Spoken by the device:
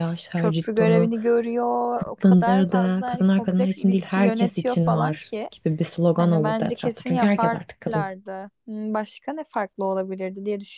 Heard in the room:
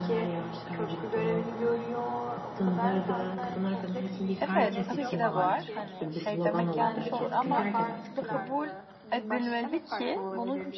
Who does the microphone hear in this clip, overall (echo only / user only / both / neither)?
both